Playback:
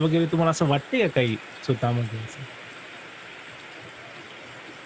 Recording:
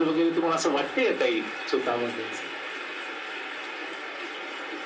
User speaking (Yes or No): No